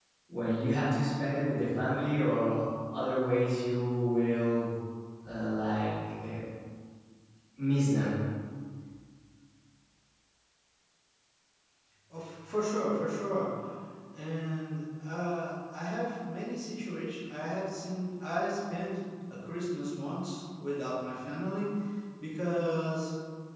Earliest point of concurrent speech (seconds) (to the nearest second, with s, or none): none